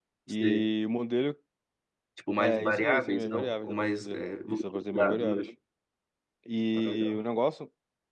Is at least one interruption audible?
Yes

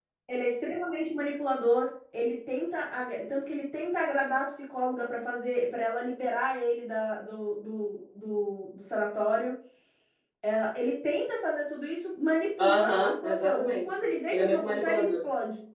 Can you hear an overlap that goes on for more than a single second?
Yes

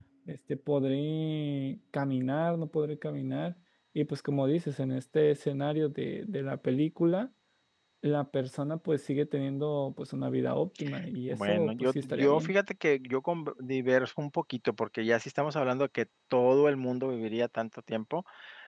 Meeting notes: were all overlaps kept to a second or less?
No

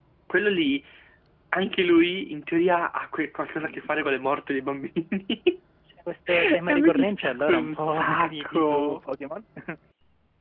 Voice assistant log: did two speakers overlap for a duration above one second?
Yes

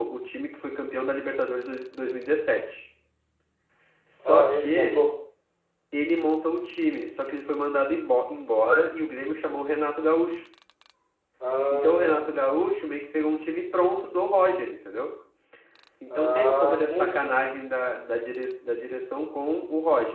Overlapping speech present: Yes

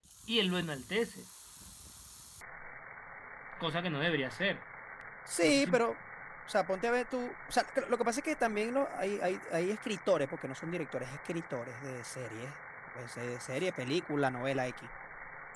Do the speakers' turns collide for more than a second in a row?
No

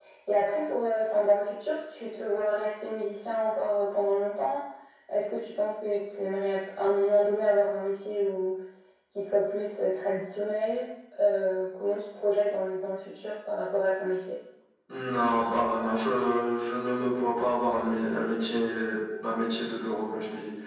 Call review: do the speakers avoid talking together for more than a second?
Yes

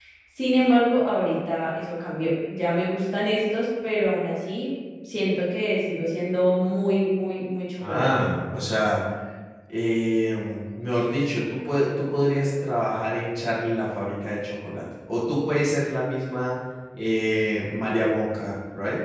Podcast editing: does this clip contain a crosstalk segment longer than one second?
No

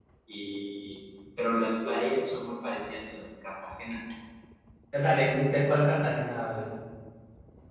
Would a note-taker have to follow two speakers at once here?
No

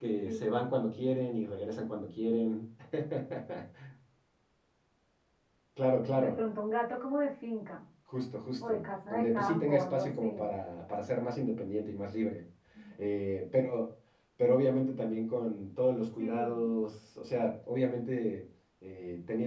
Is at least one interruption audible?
Yes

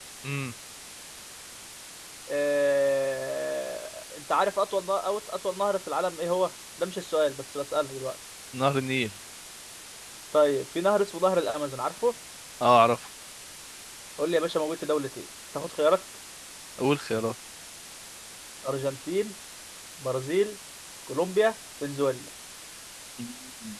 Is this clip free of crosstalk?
Yes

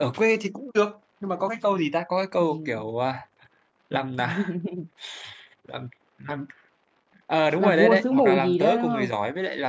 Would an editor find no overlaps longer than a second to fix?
No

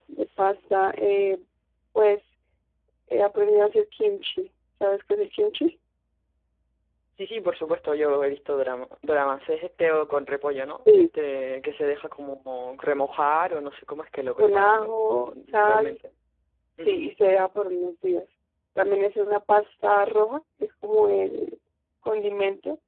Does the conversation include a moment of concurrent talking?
Yes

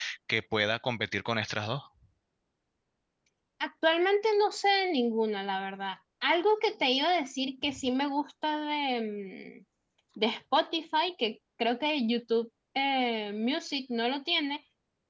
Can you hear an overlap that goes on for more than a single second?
No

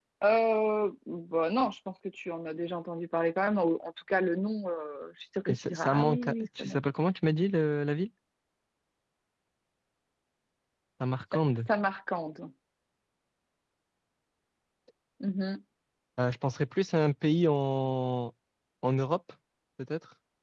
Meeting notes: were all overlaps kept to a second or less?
No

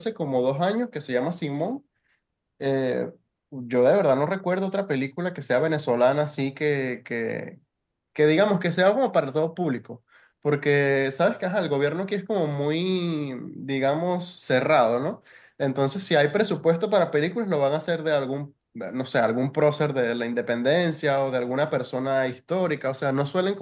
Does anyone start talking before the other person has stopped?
No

